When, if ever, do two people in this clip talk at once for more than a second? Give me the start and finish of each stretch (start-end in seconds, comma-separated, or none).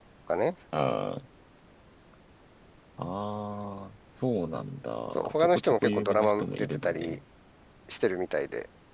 5.2-7.2